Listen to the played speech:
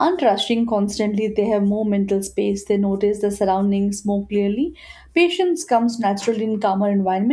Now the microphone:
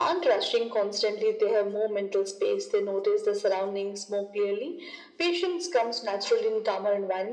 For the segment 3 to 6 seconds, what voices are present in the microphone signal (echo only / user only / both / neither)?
echo only